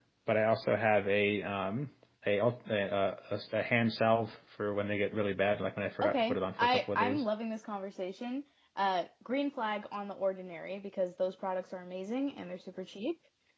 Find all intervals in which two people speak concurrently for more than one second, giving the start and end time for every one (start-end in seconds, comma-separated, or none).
6.0-7.2